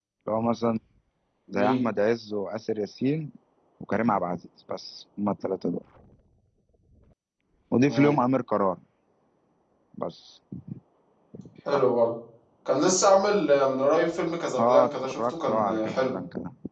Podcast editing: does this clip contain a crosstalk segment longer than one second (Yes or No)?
Yes